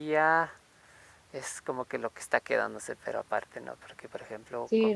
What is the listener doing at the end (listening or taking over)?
taking over